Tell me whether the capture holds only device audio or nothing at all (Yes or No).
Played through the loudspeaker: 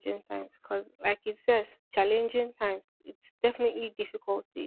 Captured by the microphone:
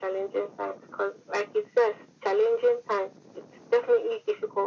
Yes